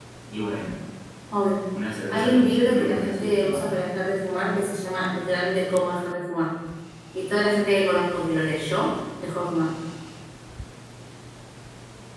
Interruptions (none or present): present